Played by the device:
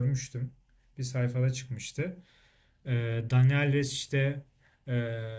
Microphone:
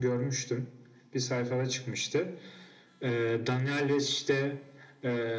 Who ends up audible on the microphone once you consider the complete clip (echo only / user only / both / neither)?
echo only